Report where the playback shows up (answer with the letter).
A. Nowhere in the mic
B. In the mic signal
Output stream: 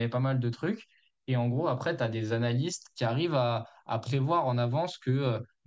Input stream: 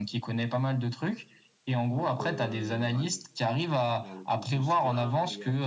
B